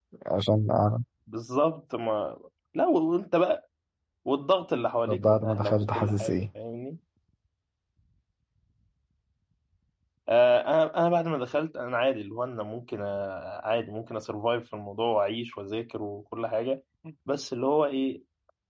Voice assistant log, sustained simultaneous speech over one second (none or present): present